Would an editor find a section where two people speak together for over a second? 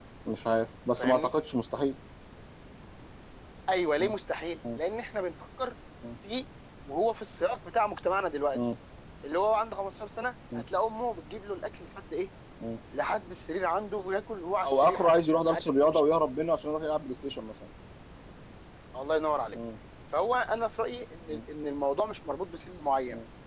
Yes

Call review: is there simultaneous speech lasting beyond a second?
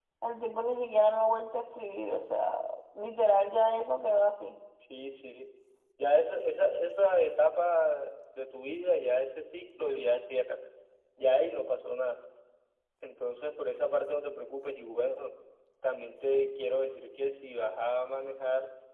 No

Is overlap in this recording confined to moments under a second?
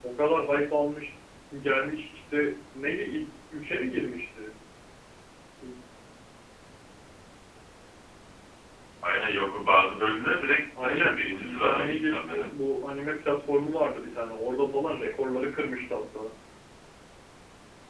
No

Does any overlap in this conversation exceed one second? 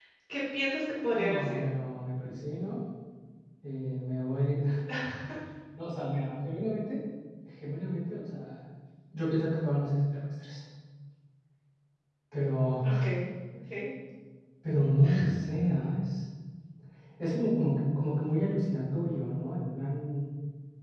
No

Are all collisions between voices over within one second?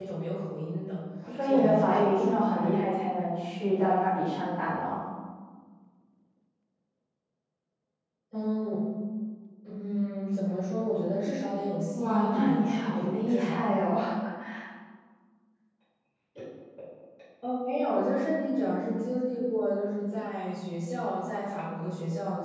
No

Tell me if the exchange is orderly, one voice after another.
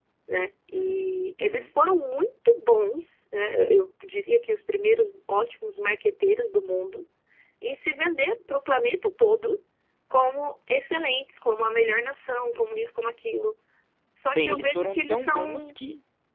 No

